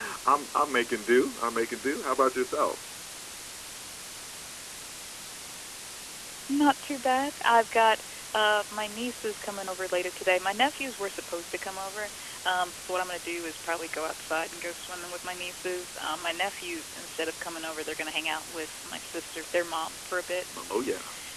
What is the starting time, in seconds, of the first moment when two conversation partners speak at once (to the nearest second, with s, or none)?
none